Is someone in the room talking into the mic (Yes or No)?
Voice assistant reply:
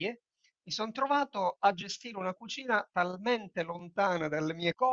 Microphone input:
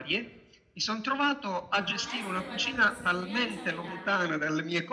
Yes